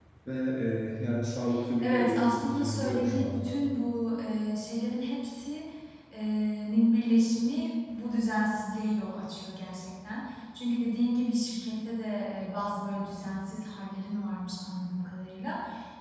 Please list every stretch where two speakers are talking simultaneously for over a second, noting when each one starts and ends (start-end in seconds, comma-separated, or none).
1.8-3.6